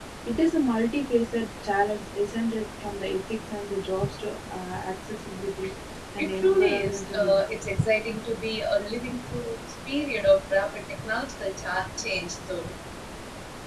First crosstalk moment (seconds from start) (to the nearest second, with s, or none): 6 s